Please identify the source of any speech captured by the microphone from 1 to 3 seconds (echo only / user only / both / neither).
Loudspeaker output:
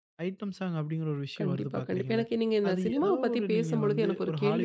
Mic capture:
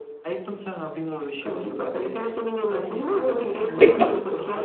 echo only